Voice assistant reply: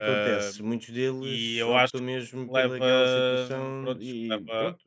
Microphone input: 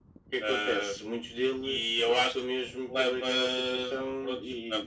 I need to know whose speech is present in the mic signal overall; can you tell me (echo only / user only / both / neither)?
echo only